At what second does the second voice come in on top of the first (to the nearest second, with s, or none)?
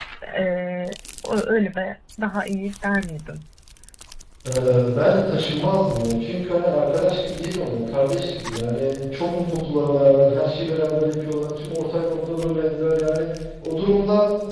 none